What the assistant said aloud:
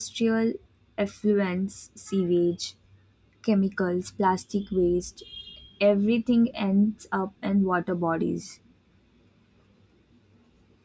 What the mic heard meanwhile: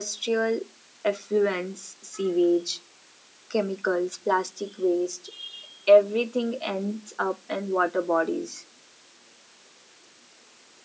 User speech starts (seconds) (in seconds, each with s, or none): none